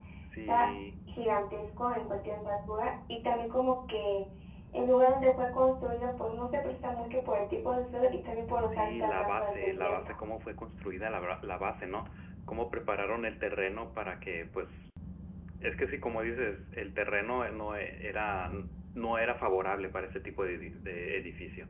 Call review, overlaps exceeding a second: present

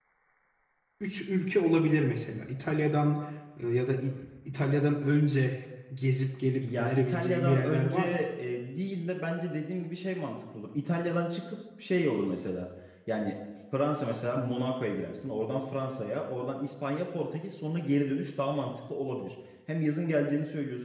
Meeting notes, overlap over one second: present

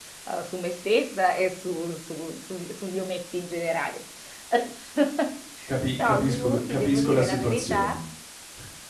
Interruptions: present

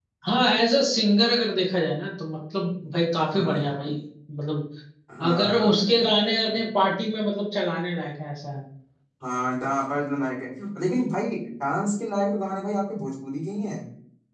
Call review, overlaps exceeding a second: none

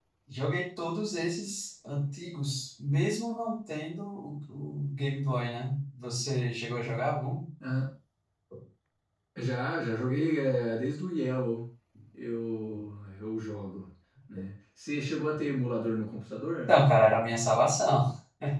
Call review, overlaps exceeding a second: none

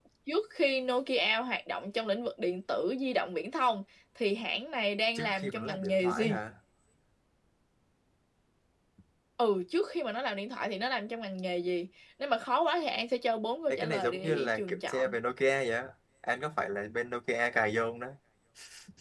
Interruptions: present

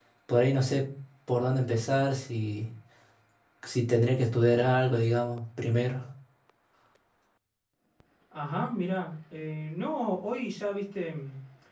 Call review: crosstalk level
none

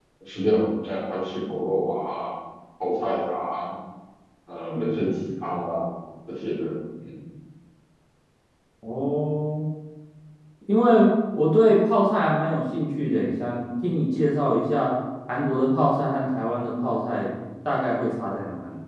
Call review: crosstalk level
none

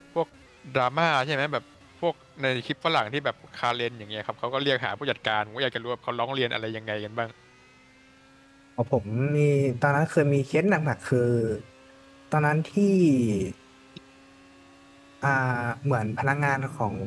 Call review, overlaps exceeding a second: none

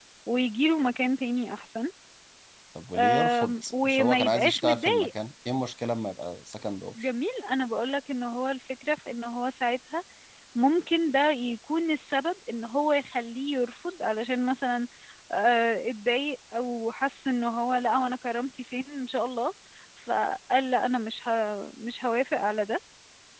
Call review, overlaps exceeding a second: present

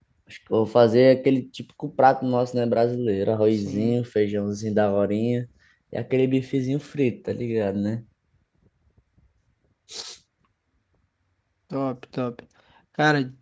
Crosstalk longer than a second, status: none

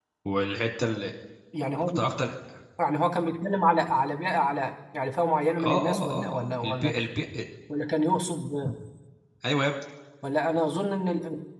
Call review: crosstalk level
present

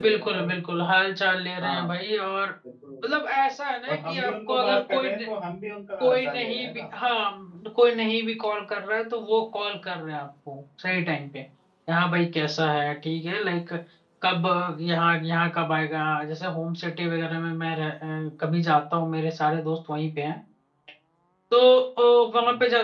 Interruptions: present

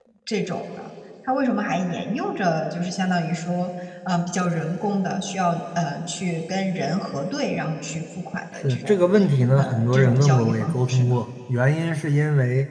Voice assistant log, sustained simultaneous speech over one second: present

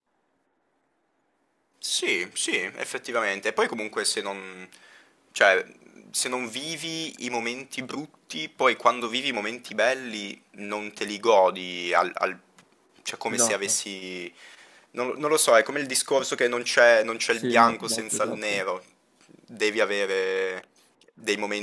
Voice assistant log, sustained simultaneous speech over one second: present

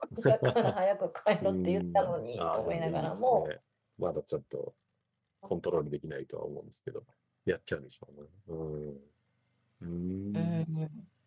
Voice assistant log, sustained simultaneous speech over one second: present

